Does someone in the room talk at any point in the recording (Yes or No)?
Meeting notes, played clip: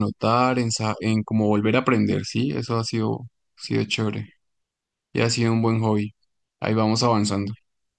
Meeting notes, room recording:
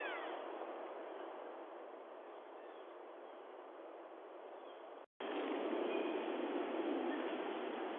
No